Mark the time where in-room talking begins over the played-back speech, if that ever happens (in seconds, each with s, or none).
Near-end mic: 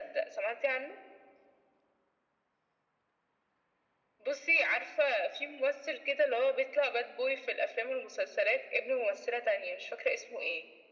none